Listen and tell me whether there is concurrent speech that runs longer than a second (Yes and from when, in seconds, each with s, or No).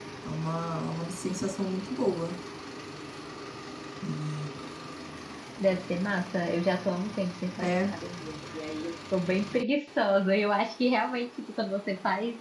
No